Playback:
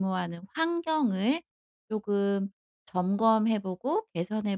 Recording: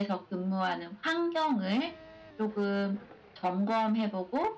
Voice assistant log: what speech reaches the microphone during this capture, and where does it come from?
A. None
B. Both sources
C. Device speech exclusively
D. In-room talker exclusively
C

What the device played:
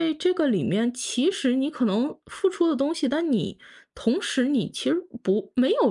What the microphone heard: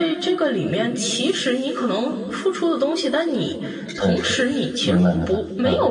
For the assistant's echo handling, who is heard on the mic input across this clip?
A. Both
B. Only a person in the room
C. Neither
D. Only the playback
A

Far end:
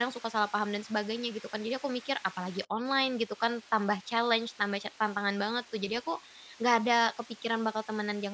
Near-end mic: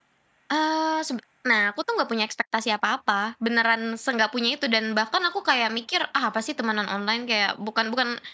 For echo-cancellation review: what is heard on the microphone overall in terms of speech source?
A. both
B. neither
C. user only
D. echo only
C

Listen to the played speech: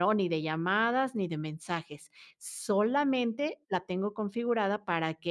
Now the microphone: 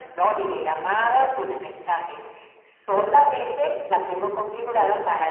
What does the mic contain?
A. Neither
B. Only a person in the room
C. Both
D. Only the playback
D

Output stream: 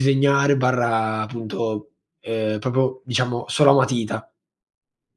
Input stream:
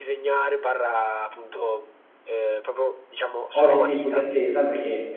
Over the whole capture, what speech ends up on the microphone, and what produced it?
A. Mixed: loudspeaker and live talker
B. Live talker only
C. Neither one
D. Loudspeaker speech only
A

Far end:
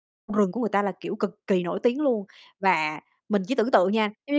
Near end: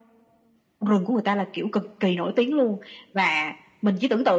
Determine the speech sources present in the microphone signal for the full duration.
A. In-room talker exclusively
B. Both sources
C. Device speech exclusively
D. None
C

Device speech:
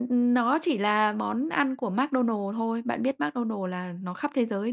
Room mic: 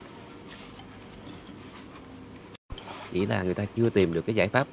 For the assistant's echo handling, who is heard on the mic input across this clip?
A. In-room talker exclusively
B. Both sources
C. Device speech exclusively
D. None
A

